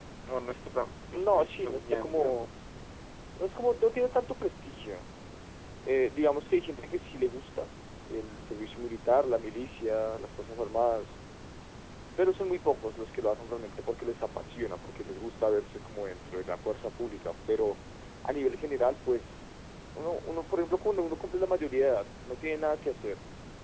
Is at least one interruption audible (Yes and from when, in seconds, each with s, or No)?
Yes, from 1.1 s